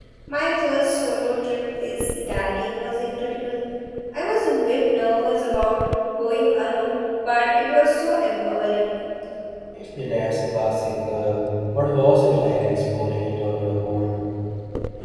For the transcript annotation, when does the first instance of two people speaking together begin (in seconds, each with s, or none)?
none